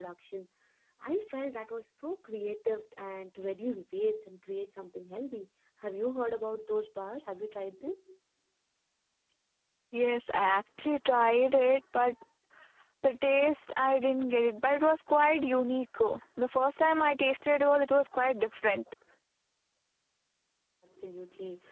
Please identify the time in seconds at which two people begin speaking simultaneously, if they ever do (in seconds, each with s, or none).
none